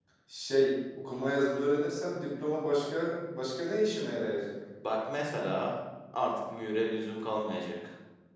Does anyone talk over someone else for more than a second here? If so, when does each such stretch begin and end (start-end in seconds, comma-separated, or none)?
none